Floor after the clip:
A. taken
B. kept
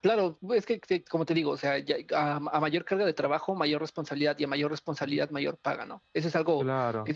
B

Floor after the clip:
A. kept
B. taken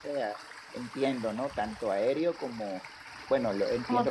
A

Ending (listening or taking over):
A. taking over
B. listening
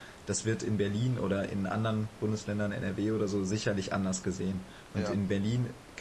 B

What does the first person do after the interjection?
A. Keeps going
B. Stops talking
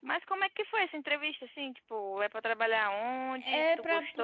B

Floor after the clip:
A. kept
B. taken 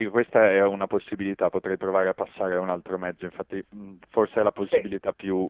A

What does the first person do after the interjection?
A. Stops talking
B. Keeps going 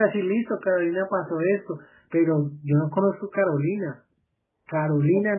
A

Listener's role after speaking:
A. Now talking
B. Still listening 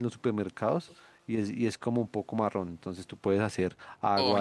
A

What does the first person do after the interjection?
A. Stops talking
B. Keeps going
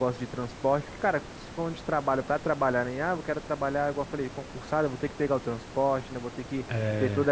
B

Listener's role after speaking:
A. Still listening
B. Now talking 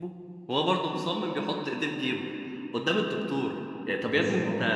B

